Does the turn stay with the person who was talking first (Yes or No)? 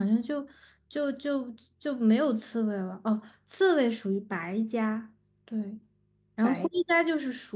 Yes